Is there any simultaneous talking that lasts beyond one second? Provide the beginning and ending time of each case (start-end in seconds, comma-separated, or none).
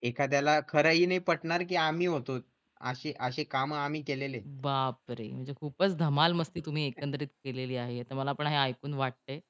none